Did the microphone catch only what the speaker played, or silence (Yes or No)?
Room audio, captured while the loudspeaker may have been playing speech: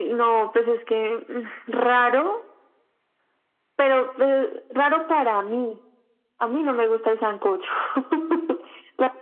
Yes